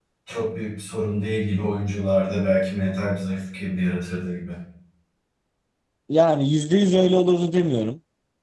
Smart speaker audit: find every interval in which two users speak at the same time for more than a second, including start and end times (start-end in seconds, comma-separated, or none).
none